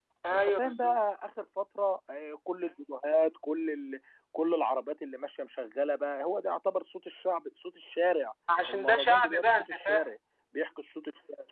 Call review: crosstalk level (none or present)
present